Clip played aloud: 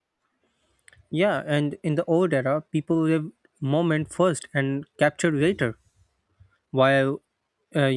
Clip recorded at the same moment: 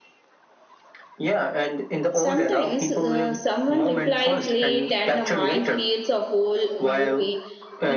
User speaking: Yes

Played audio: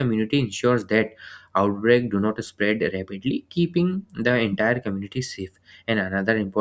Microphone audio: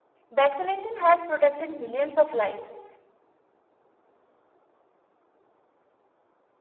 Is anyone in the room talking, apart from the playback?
Yes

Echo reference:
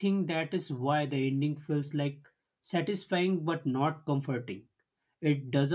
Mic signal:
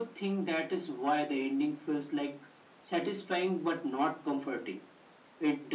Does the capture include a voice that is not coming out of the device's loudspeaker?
No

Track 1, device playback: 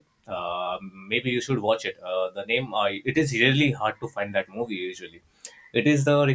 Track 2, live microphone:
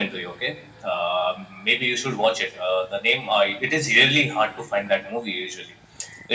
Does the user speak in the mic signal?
No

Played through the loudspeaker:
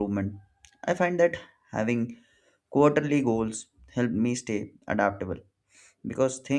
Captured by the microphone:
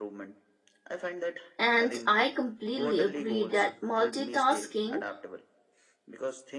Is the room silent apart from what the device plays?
No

